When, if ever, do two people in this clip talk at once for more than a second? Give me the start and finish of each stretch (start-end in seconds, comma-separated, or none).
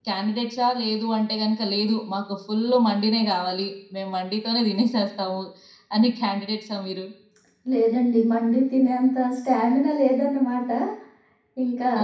none